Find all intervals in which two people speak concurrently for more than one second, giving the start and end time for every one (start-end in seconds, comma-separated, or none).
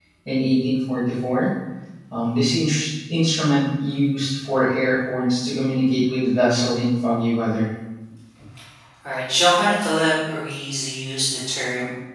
none